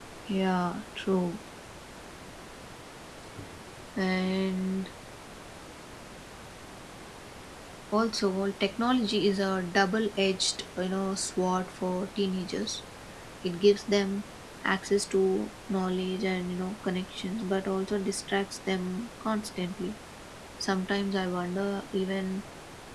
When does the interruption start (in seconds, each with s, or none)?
none